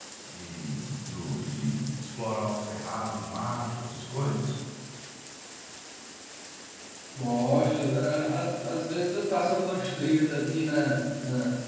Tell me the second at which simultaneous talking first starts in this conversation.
none

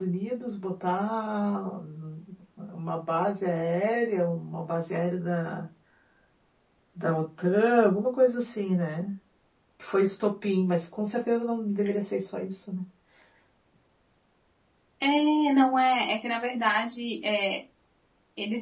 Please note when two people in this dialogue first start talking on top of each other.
none

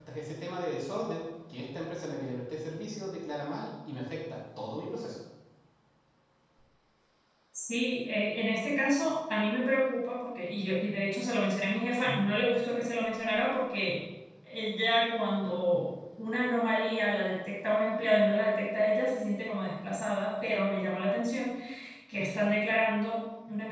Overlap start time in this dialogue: none

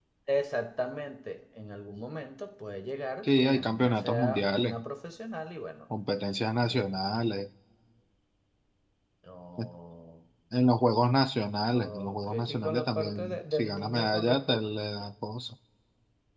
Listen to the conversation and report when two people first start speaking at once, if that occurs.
3 s

